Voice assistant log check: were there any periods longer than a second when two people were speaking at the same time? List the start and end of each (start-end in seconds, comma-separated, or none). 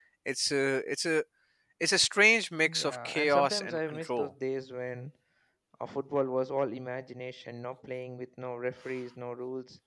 2.6-4.3